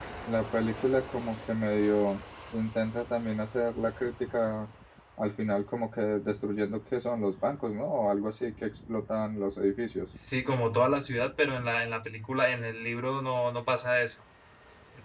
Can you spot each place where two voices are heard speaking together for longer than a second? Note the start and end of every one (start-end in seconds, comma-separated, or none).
none